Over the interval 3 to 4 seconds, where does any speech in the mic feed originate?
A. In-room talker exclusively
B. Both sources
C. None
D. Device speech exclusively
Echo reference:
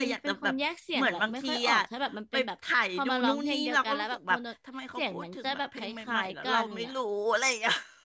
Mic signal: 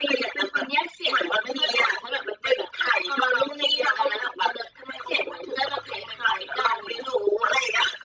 D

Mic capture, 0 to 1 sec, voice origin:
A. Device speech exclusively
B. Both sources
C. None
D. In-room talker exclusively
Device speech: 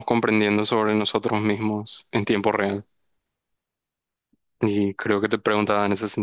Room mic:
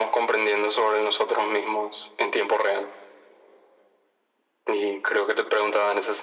A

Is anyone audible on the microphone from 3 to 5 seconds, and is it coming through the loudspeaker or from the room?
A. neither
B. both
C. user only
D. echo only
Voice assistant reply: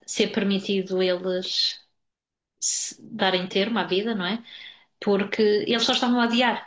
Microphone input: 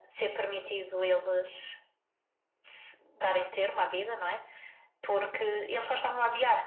D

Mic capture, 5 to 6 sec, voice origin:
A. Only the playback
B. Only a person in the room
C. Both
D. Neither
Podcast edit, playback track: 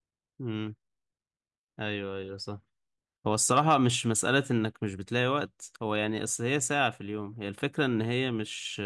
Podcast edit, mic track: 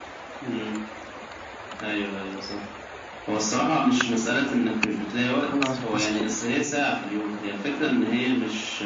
C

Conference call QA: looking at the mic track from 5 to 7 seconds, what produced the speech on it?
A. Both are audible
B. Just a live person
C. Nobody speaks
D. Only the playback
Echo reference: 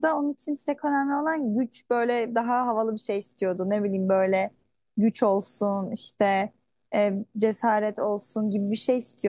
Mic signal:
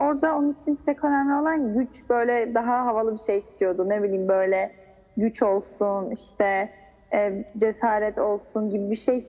D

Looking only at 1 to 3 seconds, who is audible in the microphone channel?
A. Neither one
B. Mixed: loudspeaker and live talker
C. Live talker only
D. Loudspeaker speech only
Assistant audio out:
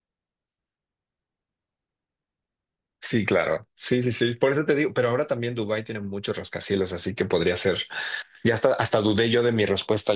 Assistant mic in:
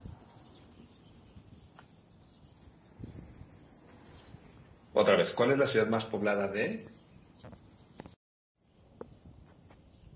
A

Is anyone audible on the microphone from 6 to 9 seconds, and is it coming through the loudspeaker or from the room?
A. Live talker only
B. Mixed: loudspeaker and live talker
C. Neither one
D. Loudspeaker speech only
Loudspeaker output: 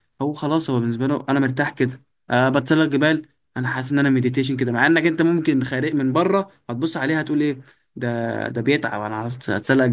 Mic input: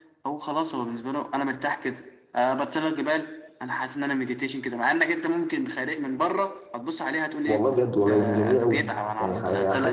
B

